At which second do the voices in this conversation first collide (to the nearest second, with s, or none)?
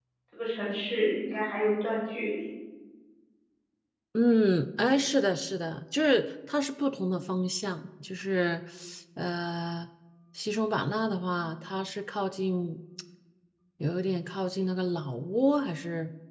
none